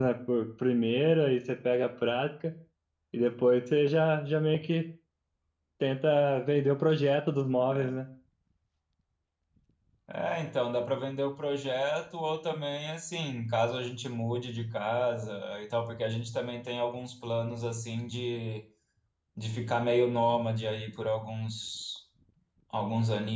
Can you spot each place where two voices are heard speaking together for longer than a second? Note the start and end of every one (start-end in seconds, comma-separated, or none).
none